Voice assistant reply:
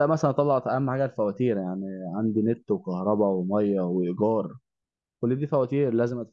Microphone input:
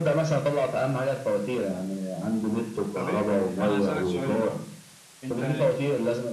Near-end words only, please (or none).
طب إيه- انا هسالك سؤال الاول انت